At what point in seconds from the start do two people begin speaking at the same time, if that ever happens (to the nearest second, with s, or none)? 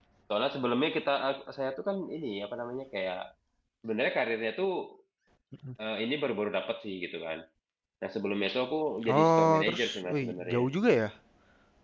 9 s